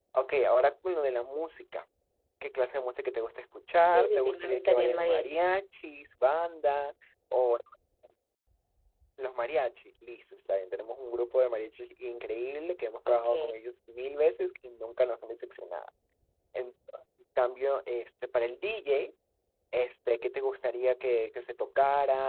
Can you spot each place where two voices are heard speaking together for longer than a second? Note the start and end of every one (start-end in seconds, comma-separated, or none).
3.9-5.3